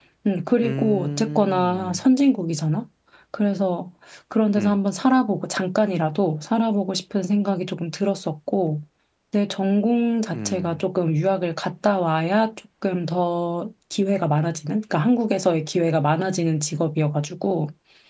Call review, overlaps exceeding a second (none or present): present